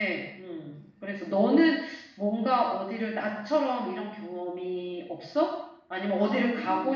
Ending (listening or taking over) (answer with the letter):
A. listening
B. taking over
A